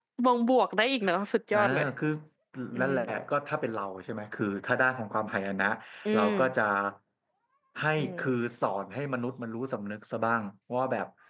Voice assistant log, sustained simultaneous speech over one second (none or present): none